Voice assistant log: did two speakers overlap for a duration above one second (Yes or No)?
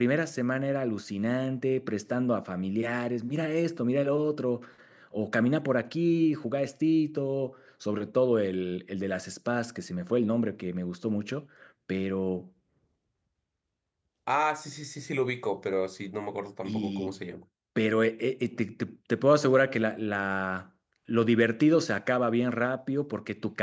No